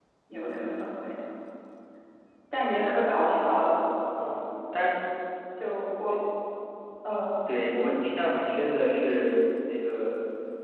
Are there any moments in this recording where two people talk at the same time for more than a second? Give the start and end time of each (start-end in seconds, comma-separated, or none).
none